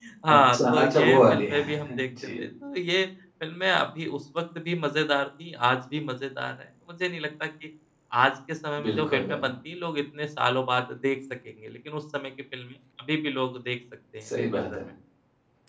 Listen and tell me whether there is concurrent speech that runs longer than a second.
Yes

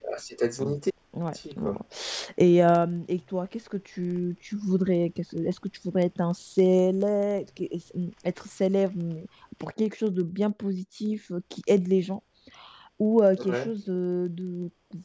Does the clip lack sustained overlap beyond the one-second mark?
Yes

